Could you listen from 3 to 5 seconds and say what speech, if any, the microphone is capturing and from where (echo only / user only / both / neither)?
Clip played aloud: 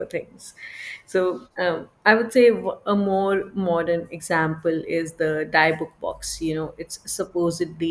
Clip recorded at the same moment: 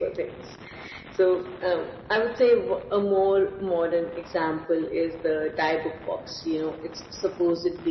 echo only